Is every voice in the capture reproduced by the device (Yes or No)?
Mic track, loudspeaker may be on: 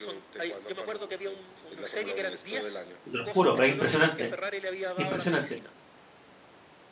No